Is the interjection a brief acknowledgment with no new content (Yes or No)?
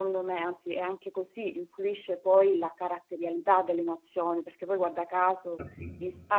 Yes